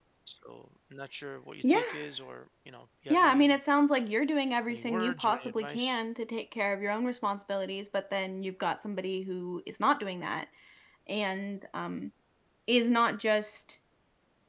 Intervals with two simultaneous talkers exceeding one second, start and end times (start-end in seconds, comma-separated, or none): 4.7-6.0